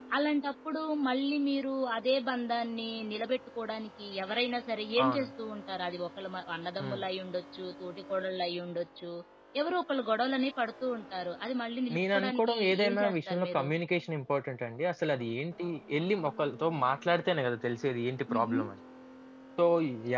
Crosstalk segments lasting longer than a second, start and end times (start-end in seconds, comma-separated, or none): 11.9-13.7